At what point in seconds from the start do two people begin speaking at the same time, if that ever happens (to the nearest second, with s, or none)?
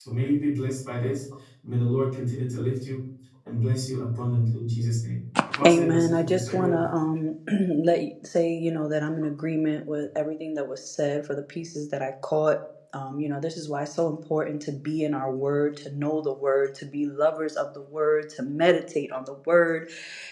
6 s